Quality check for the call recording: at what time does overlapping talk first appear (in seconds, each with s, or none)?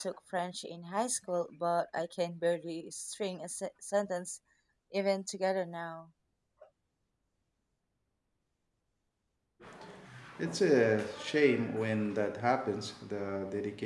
none